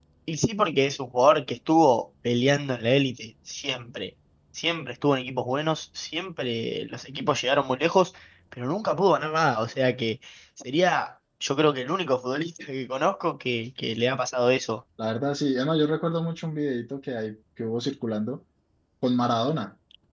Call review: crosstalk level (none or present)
none